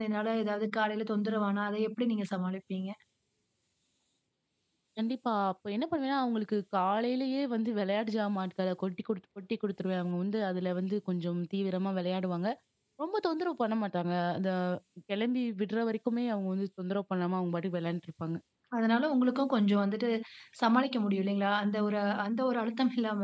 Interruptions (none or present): none